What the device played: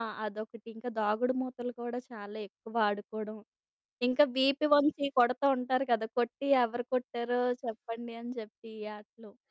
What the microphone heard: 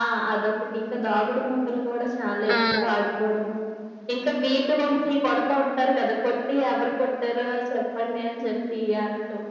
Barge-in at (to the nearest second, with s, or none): 3 s